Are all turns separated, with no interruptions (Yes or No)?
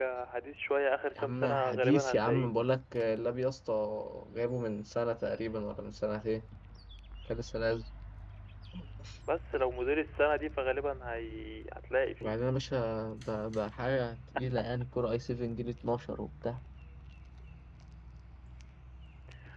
No